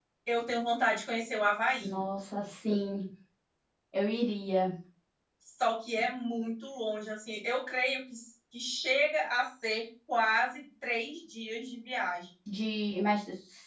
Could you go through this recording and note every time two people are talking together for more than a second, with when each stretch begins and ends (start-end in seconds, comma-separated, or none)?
none